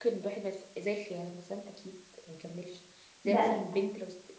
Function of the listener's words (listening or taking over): listening